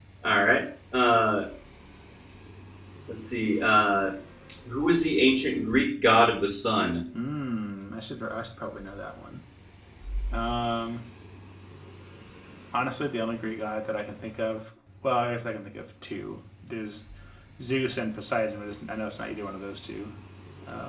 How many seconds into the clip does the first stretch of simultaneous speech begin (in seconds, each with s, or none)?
none